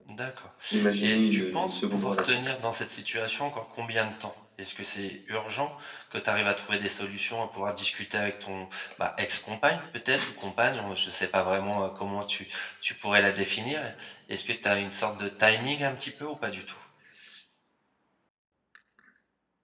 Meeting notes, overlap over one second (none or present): present